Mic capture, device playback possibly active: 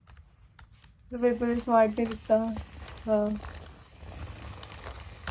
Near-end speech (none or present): present